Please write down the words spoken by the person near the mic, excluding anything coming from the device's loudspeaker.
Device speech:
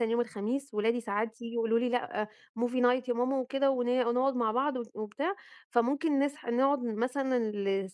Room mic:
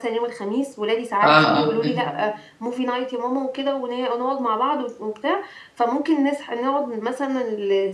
آه، آه، فهمت.

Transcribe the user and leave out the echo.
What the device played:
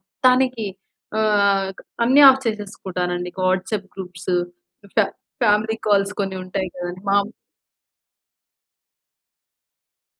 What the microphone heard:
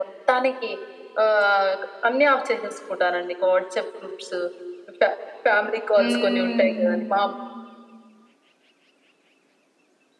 హ్మ్.

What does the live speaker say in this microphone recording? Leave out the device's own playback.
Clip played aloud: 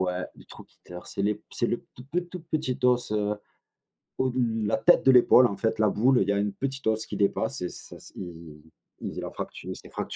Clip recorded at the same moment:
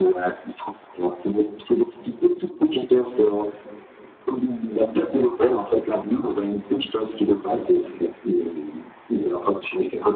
none

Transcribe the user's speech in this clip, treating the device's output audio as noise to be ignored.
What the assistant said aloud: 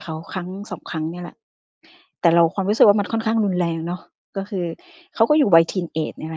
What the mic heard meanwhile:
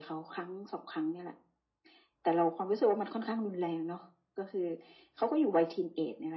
none

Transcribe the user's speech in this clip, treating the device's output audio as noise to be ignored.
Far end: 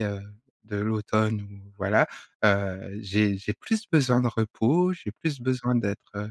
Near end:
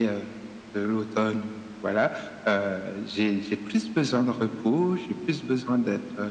none

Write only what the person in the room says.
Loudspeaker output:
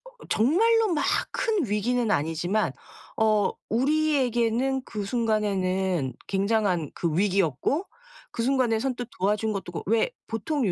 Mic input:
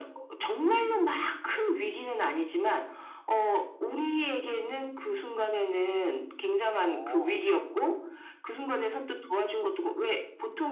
어.

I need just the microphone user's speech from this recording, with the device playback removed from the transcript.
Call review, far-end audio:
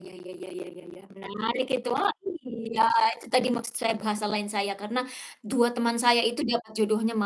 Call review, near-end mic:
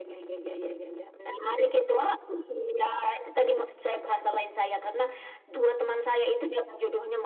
none

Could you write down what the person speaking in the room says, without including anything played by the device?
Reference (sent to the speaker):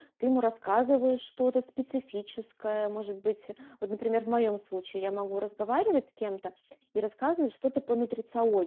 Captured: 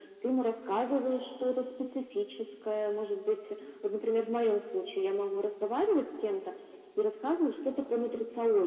none

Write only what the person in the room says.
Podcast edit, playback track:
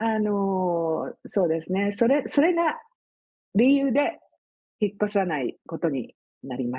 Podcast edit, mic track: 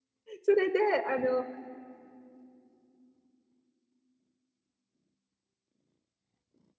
それであの、ん、

